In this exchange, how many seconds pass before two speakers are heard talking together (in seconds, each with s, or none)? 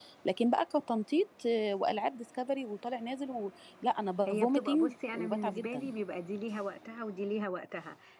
4.3 s